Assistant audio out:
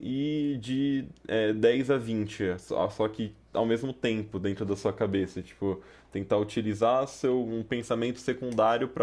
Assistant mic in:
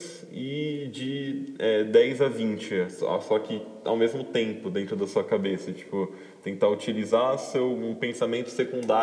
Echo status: present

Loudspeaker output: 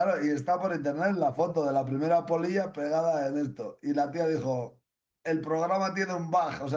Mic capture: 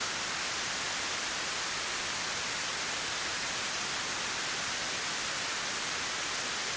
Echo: none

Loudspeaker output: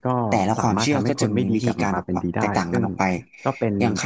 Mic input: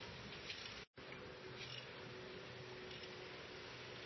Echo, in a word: none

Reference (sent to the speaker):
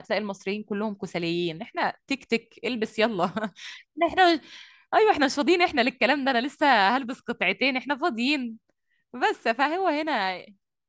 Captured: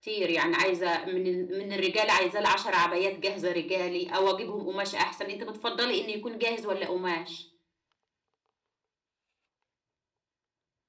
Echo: none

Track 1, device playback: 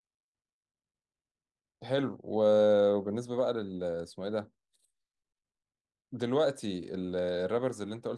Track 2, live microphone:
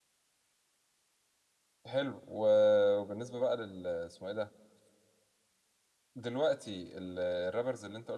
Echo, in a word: present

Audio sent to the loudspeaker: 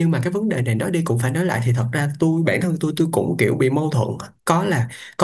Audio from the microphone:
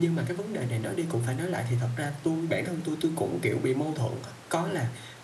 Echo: present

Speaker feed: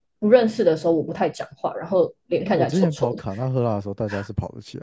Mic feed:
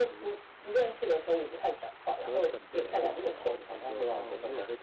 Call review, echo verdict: present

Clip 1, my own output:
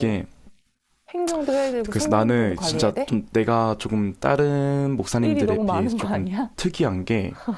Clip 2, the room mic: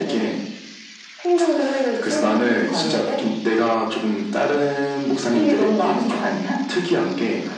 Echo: present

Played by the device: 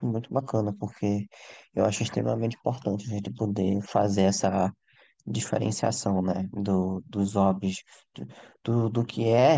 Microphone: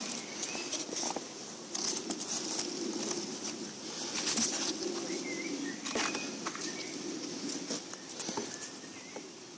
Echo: none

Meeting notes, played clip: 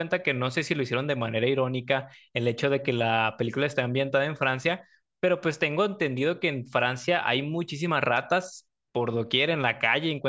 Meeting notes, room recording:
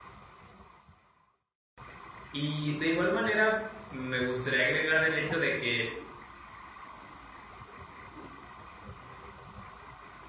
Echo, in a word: none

